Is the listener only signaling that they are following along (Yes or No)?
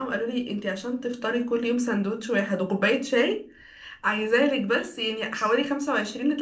Yes